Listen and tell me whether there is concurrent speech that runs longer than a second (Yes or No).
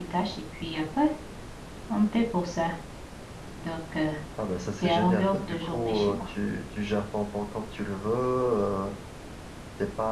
Yes